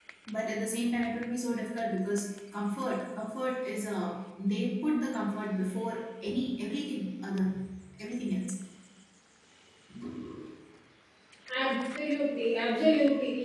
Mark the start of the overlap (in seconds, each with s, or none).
none